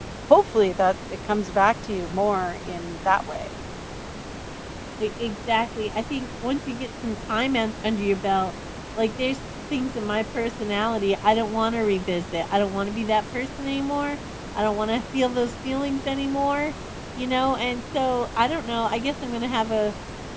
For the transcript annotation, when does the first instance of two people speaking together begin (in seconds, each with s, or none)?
none